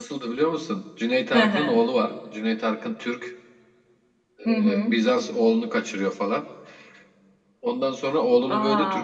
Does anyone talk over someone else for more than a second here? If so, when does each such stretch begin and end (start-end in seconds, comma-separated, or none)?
none